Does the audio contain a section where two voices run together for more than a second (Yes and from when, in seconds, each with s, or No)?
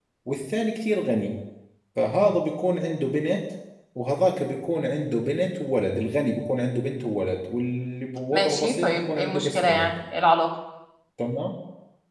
Yes, from 8.3 s